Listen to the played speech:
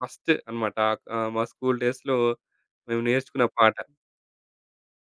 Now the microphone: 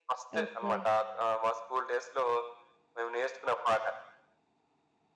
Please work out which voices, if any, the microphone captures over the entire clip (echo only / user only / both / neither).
both